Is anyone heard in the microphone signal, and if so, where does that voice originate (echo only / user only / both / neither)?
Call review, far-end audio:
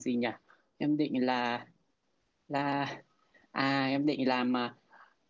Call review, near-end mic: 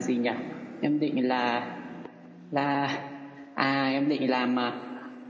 echo only